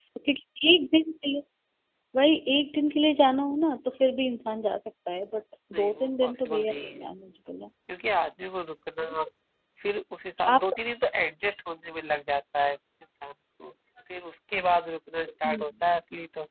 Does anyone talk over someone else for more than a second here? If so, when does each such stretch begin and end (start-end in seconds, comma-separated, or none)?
5.8-7.0